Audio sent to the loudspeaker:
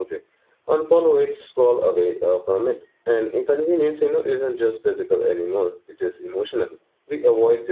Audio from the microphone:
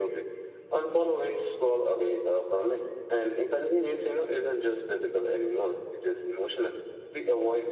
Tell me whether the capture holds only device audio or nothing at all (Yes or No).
Yes